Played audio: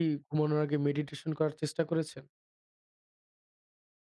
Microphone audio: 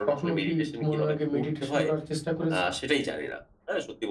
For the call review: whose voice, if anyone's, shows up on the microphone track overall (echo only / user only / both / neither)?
both